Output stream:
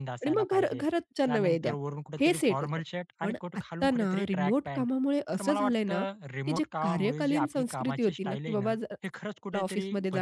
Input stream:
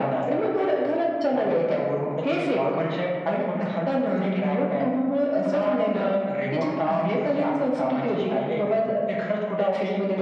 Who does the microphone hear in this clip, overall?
echo only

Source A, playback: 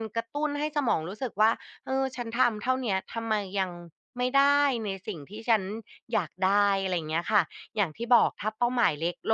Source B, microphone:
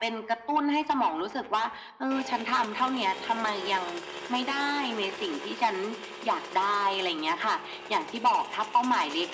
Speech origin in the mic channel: echo only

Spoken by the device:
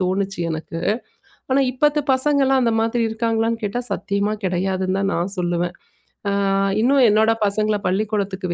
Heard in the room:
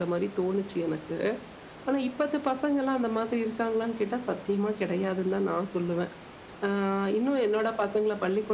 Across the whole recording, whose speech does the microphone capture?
echo only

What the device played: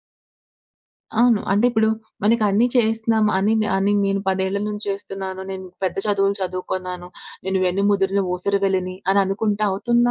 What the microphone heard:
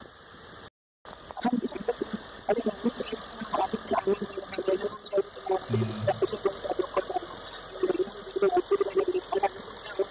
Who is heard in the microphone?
both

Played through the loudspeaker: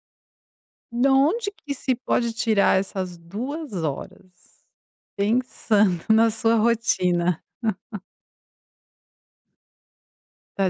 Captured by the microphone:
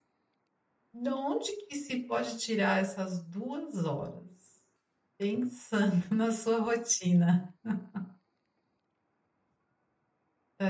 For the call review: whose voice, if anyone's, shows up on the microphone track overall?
echo only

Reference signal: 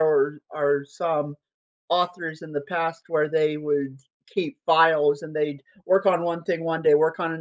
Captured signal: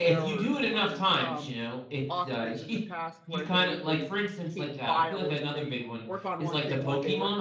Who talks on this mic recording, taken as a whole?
both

